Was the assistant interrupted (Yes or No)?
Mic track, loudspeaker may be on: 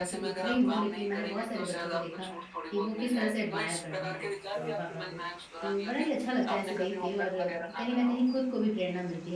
Yes